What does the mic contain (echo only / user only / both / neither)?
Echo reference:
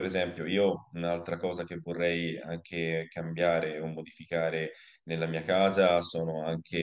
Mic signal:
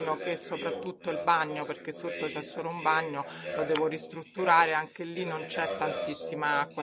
both